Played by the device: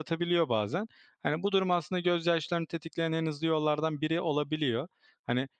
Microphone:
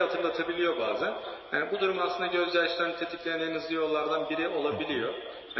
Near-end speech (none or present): present